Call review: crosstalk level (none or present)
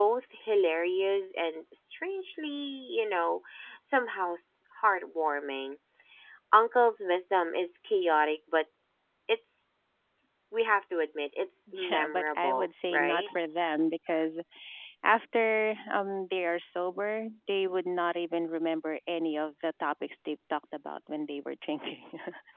present